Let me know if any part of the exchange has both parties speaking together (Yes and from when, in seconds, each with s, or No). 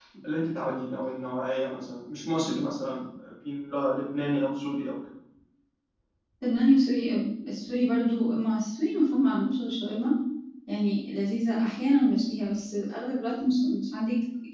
No